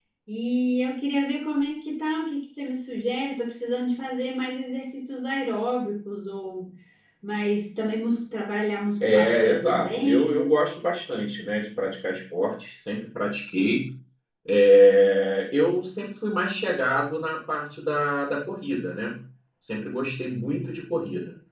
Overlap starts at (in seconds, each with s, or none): 9.0 s